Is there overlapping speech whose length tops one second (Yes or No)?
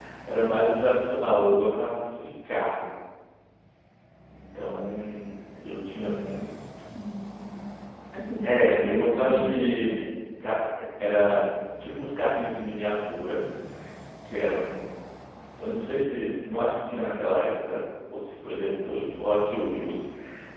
Yes